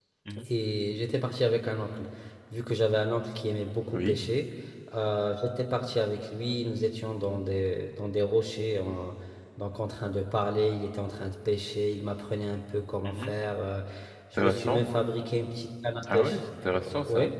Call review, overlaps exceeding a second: none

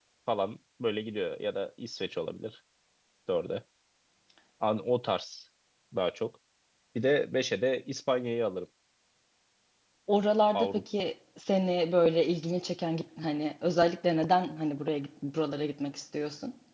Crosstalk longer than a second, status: none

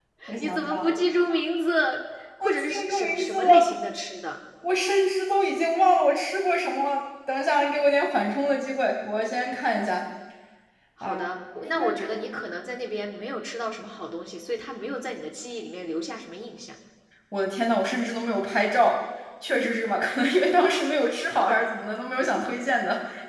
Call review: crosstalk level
present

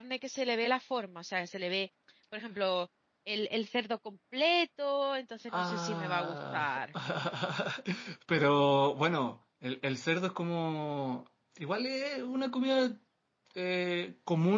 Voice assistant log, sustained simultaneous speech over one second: present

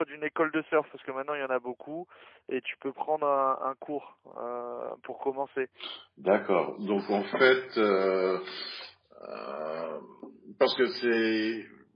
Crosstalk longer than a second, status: none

